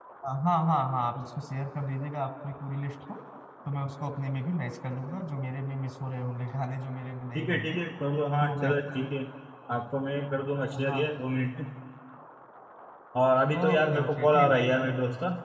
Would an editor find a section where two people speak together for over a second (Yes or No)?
Yes